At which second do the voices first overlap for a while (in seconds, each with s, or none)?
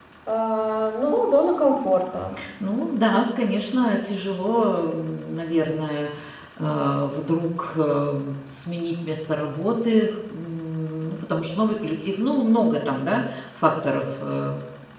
none